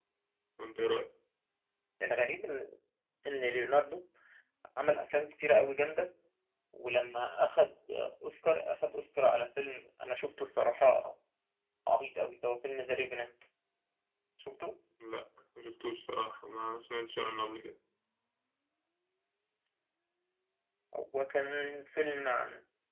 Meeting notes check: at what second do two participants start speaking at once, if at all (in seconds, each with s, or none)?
none